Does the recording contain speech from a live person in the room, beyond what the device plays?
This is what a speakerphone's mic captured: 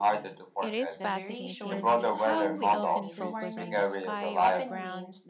Yes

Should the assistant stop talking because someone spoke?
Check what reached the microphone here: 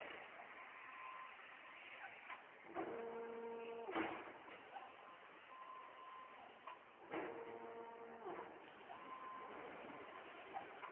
No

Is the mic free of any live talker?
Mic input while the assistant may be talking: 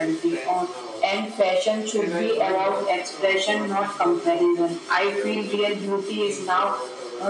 No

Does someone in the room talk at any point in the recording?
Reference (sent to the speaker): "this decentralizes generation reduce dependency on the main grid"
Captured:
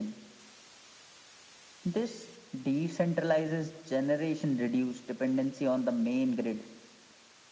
No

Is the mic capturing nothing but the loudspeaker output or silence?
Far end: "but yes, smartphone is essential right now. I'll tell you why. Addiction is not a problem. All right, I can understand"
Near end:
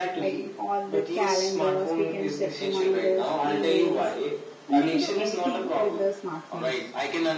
No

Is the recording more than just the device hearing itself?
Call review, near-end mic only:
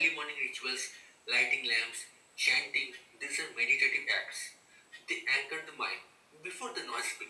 No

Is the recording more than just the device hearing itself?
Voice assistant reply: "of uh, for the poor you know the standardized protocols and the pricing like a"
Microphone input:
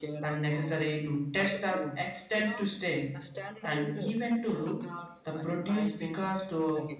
Yes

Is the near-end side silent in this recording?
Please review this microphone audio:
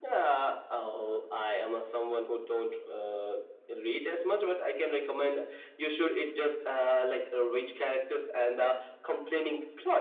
Yes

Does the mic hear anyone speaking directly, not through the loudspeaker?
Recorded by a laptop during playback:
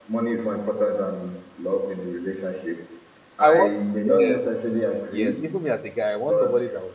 Yes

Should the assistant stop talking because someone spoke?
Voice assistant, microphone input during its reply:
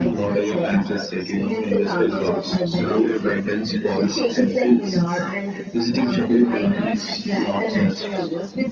No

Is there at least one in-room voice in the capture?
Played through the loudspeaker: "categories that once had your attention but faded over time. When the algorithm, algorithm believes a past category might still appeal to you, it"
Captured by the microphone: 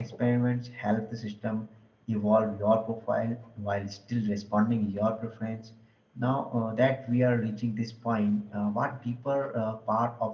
Yes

